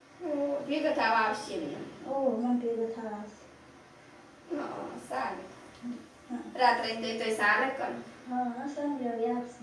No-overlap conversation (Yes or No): Yes